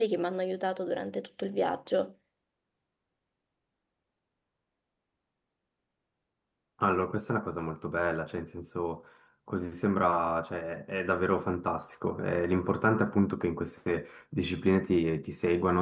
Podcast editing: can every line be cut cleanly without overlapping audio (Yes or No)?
Yes